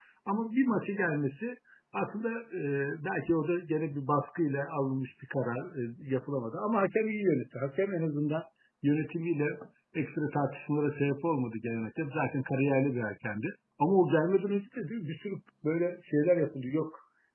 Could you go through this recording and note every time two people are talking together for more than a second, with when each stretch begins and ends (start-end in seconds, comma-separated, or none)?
none